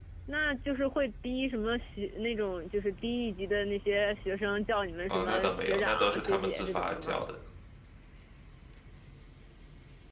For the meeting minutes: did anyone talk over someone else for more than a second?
Yes, from 5.1 s

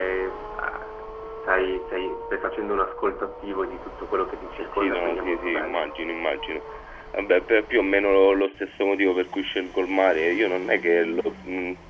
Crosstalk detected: Yes, from 4.6 s

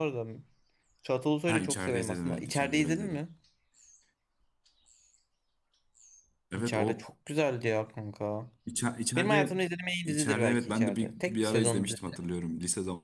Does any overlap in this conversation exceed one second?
Yes, from 1.5 s

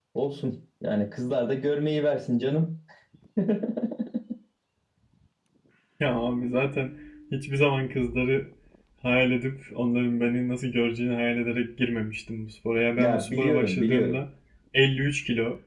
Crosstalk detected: Yes, from 13.0 s

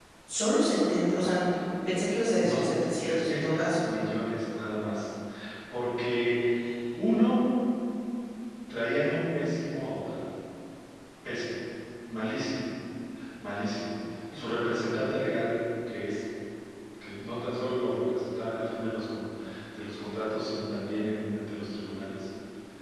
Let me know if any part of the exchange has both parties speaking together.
Yes, from 2.5 s

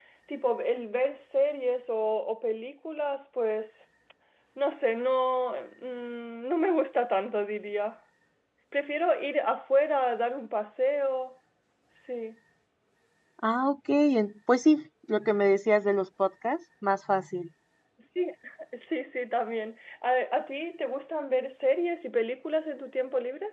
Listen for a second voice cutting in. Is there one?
No

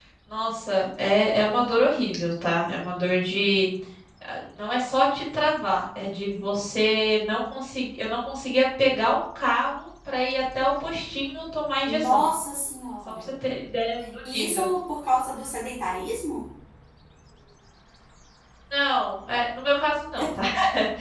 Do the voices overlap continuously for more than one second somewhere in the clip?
No

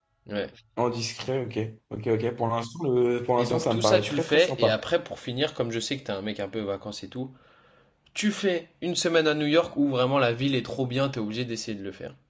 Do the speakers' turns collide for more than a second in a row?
Yes, from 3.4 s

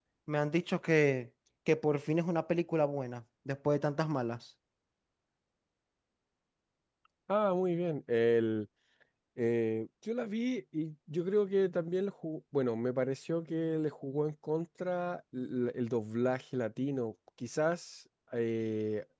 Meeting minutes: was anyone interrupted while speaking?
No

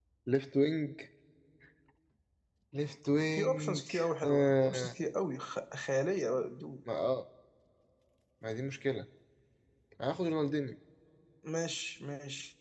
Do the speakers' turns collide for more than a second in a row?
Yes, from 3.3 s

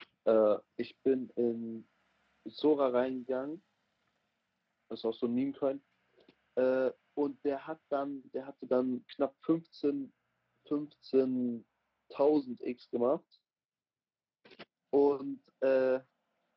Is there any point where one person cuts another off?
No

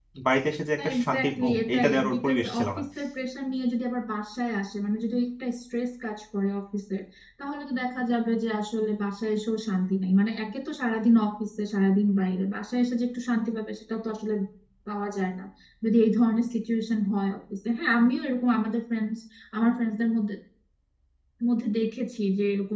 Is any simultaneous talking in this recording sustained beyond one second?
Yes, from 0.9 s

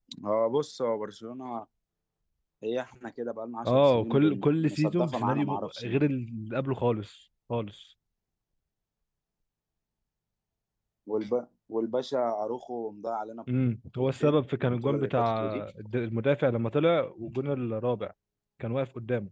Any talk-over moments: Yes, from 3.7 s

